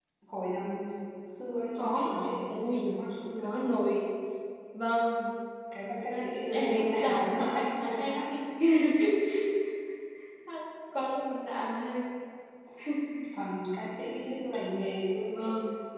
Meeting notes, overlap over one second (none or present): present